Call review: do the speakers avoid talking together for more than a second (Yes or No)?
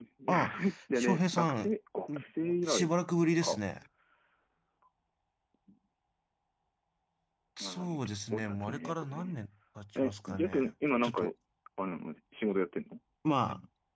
No